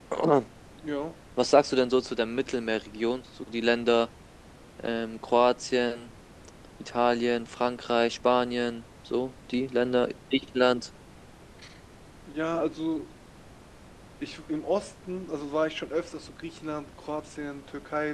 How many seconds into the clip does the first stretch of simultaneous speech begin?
none

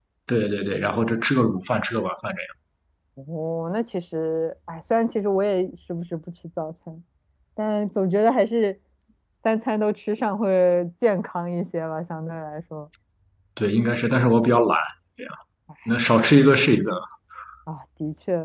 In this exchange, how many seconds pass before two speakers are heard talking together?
none

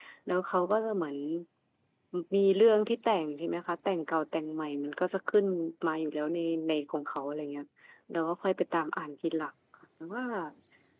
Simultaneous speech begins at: none

